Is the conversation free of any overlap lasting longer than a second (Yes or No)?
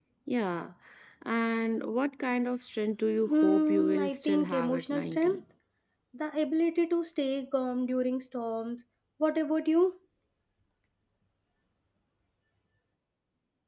No